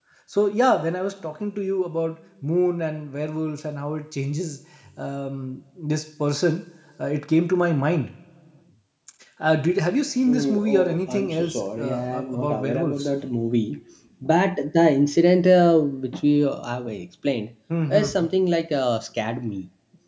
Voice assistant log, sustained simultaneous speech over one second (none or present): present